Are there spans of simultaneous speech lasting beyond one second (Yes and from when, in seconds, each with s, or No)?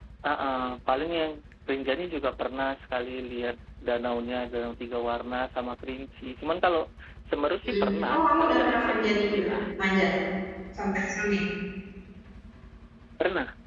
Yes, from 7.7 s